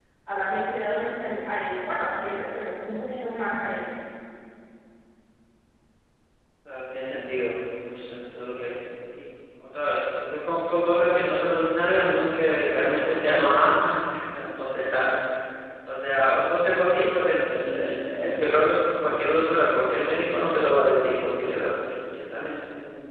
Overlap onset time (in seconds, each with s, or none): none